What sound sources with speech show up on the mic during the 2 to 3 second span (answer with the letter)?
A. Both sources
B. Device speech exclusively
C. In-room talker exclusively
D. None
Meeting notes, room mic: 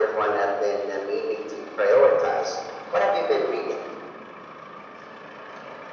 B